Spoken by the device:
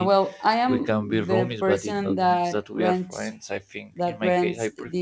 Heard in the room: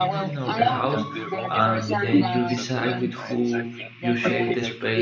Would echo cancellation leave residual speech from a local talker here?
Yes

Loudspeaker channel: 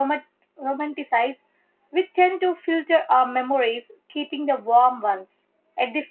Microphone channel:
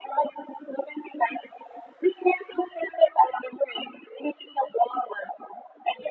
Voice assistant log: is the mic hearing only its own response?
Yes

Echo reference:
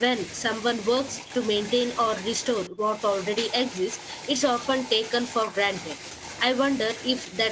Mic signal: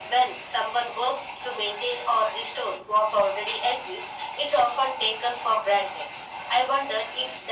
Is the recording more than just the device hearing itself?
No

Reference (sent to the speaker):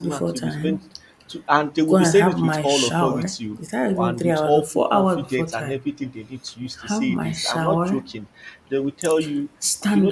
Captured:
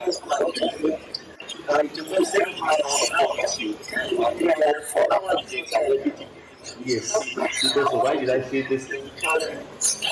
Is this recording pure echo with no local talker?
No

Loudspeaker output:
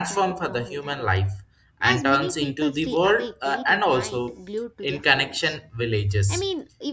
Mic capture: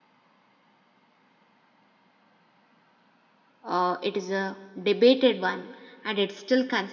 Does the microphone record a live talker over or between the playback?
Yes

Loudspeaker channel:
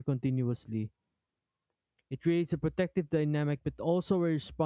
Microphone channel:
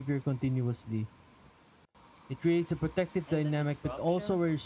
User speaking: Yes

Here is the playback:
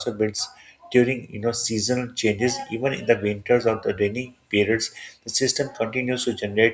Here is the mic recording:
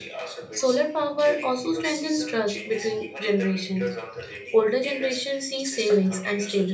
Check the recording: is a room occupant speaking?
Yes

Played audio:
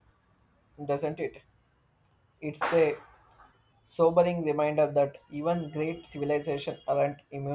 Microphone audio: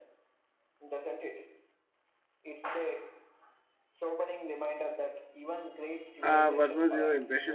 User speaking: Yes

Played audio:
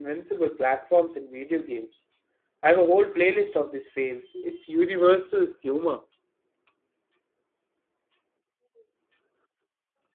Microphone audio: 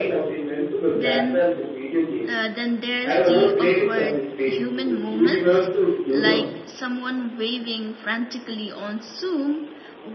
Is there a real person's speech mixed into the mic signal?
Yes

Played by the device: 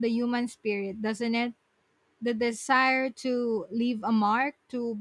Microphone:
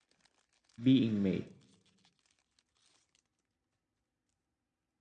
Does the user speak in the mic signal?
Yes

